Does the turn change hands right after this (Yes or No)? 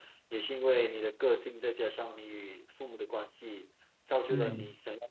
No